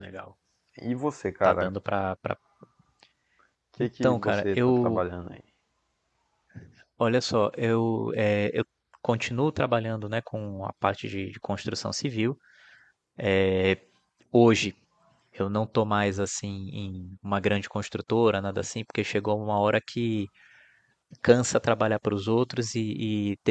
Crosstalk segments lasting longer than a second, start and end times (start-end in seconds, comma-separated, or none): 3.8-5.0